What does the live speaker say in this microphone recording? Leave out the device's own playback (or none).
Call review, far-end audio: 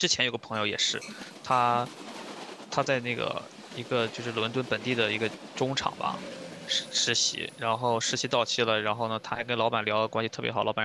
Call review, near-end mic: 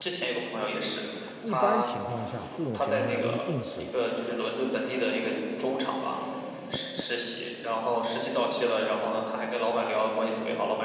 一般情况下，这种情况下就是硬实力，